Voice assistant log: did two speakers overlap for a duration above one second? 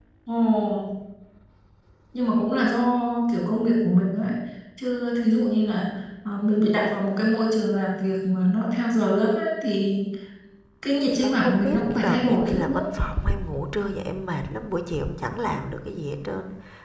Yes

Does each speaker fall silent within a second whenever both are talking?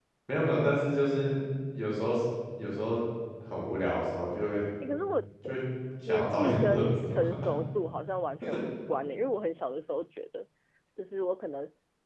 No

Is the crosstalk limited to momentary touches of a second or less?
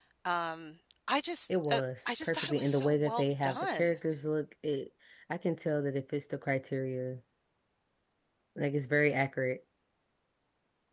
No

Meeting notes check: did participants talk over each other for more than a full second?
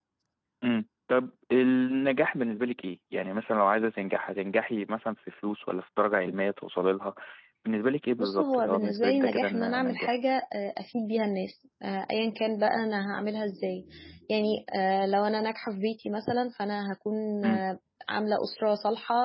Yes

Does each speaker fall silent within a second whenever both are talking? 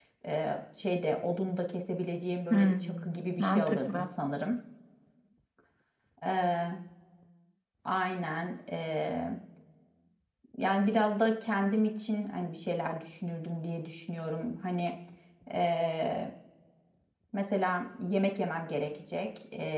No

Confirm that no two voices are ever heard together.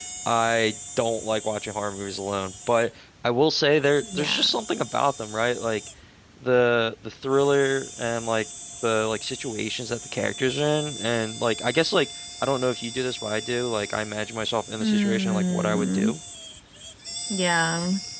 No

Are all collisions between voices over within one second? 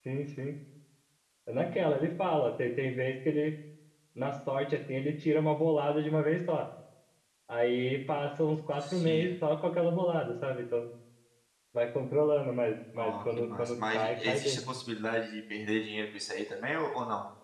No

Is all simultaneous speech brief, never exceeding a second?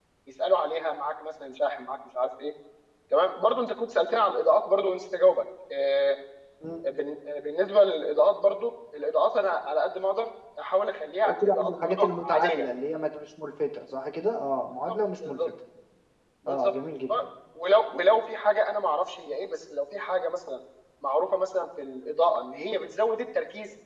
No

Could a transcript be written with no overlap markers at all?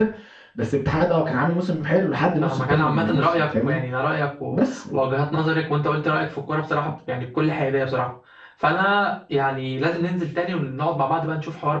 No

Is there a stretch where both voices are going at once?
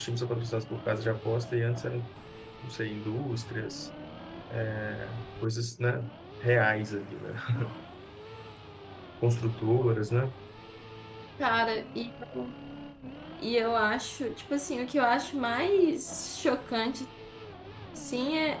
No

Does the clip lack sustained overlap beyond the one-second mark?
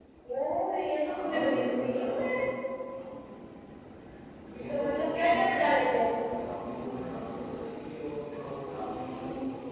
No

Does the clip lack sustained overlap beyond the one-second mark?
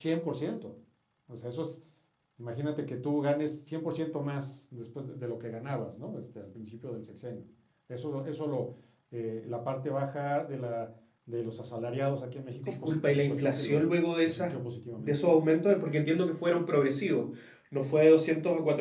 No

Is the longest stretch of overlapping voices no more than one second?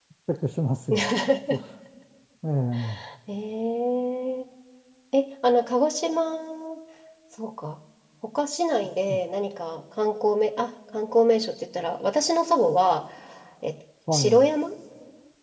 Yes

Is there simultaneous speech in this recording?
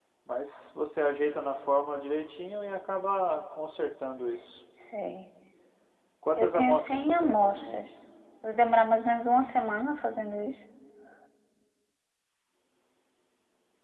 Yes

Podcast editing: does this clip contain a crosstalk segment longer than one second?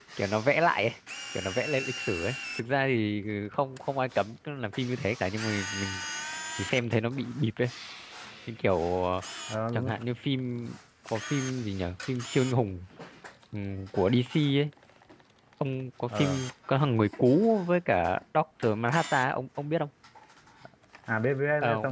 No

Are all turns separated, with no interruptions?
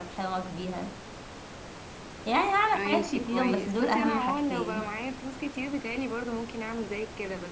No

